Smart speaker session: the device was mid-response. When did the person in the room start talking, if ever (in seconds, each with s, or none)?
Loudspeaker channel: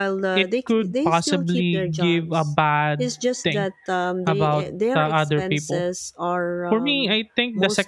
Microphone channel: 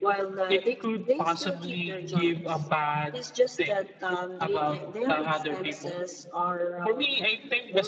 none